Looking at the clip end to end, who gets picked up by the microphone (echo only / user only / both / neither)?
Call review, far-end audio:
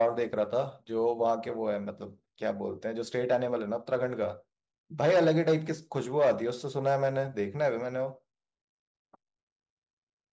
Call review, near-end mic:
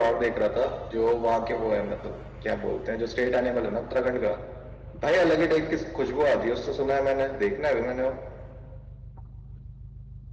echo only